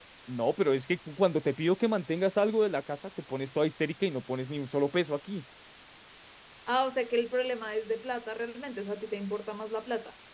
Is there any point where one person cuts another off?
No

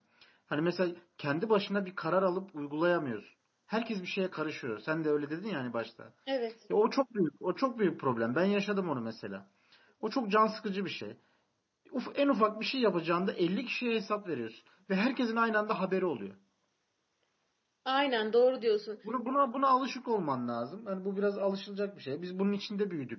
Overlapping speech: No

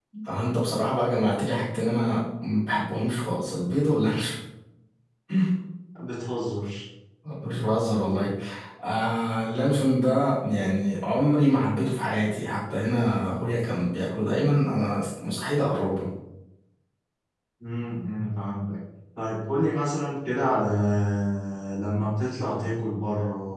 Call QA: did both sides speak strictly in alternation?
Yes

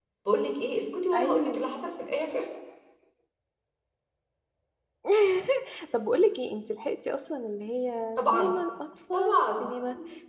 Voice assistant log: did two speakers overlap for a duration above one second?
No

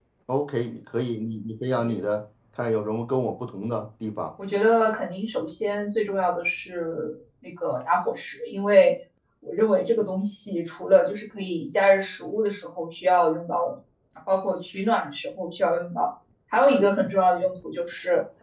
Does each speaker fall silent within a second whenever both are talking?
Yes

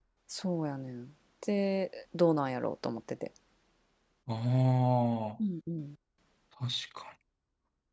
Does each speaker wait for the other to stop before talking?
Yes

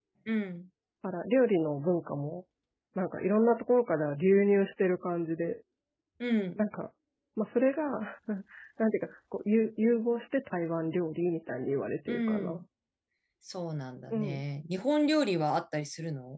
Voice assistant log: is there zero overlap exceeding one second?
Yes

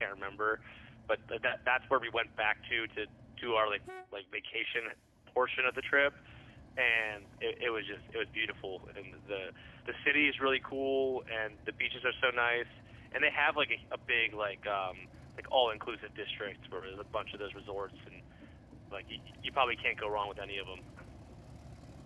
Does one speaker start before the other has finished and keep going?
No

